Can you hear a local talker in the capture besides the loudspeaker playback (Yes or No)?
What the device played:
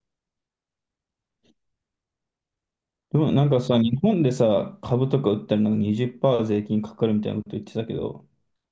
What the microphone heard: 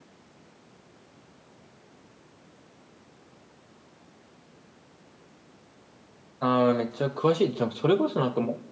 Yes